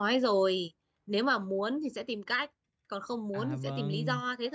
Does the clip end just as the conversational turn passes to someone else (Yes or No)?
Yes